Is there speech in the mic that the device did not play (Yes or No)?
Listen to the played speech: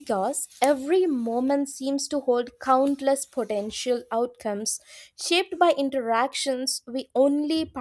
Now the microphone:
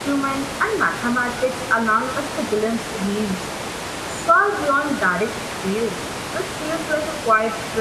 Yes